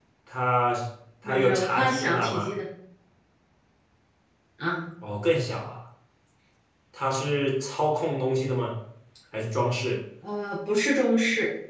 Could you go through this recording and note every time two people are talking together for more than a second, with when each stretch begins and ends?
1.2-2.5

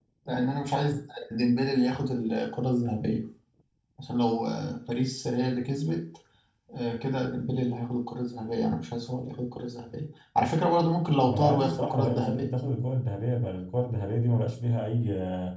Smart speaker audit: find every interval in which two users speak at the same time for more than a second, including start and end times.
11.3-12.5

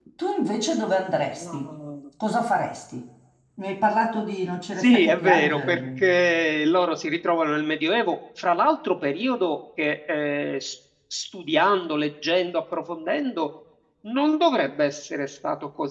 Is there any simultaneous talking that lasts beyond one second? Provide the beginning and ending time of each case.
4.8-6.0

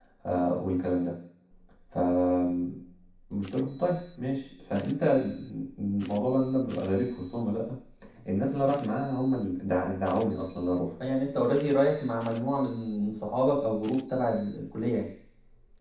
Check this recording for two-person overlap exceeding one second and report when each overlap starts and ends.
none

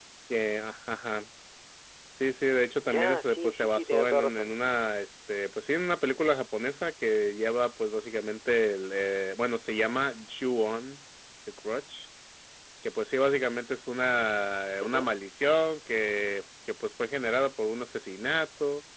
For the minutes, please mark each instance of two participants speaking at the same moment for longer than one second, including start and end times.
2.8-4.5

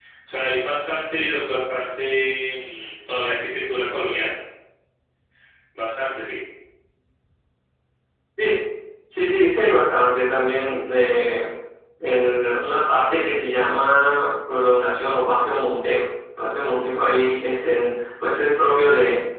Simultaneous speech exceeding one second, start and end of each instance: none

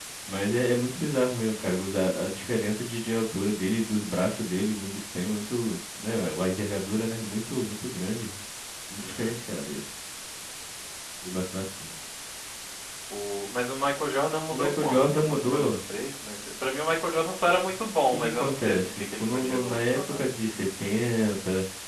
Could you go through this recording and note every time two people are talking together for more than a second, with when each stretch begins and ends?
14.5-15.8, 18.1-20.4

